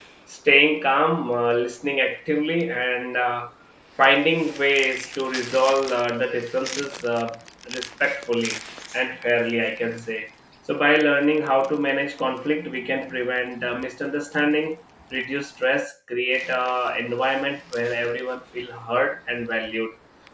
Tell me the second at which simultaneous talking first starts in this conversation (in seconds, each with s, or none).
none